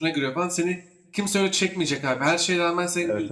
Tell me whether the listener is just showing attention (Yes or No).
Yes